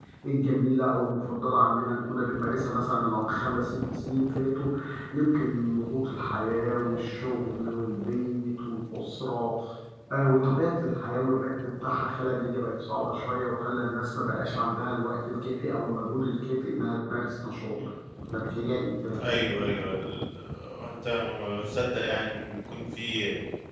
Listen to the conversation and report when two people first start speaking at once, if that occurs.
none

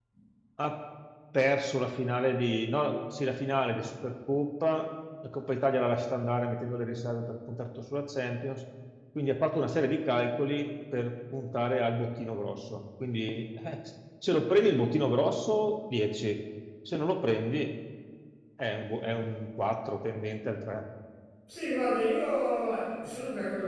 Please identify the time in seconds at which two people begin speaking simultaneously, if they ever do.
none

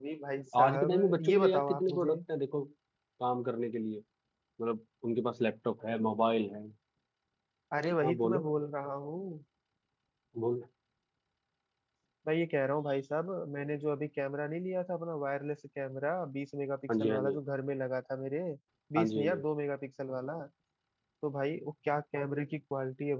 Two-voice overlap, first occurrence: 0.6 s

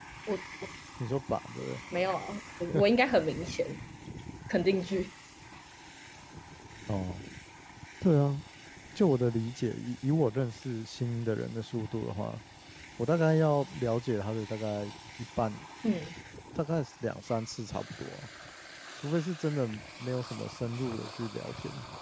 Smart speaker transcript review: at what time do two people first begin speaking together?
none

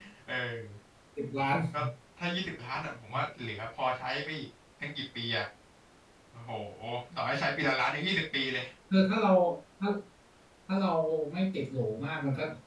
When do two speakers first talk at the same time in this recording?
none

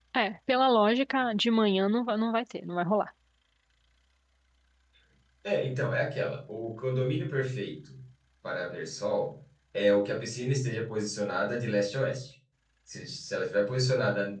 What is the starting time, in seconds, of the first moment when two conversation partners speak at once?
none

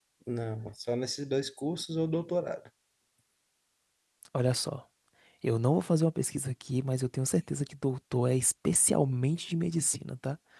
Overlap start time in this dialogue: none

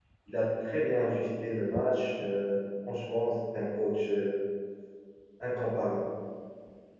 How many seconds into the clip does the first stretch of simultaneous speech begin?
none

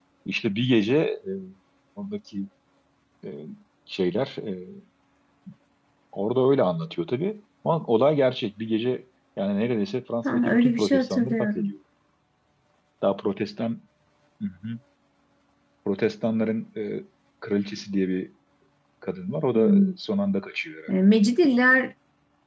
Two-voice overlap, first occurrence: 10.2 s

